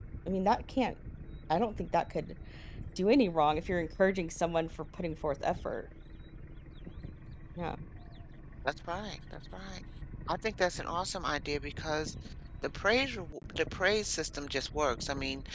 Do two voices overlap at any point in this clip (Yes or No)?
No